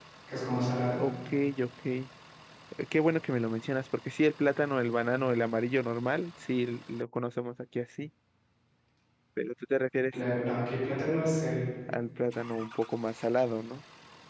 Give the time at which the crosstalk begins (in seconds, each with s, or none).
none